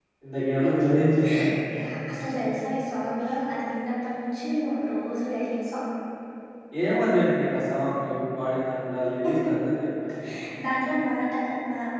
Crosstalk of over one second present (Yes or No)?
No